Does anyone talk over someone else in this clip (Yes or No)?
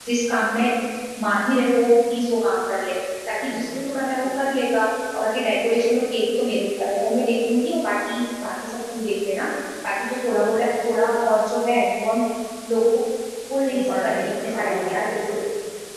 Yes